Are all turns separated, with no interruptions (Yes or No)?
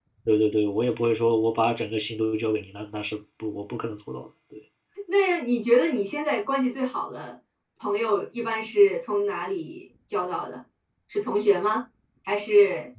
Yes